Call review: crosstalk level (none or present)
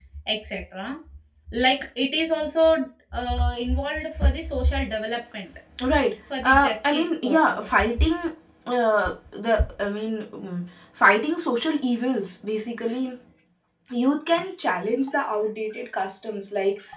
present